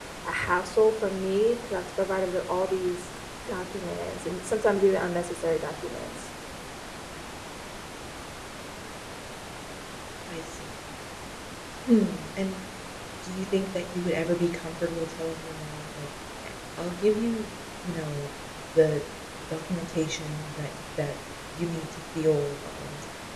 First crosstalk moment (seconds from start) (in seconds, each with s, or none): none